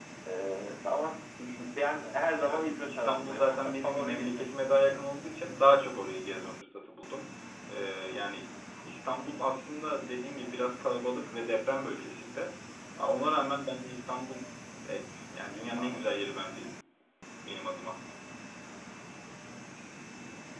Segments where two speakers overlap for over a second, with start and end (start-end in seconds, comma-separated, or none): 2.4-4.5